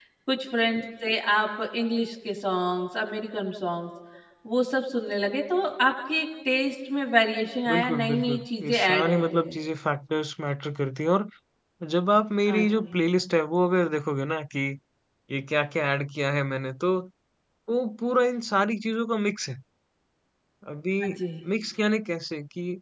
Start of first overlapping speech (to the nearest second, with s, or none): 8 s